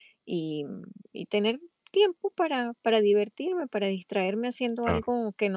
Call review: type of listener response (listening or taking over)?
listening